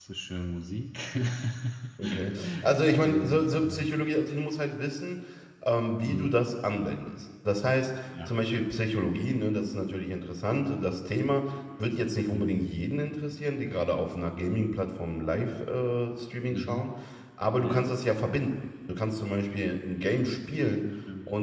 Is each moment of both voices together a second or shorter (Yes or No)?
No